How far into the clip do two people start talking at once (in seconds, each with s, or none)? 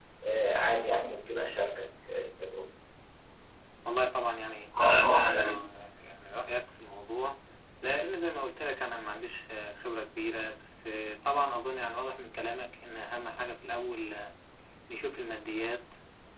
none